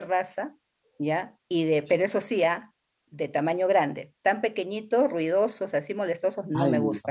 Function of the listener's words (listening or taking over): taking over